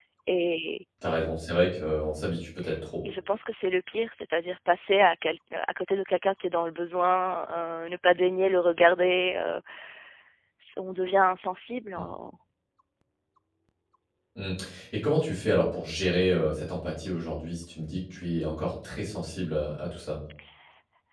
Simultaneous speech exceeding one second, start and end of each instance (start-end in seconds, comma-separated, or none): none